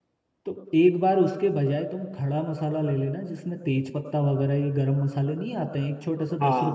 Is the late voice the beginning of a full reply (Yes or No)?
Yes